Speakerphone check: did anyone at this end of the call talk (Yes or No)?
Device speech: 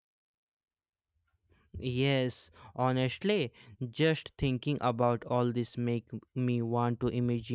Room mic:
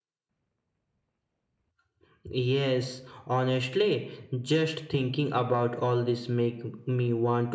No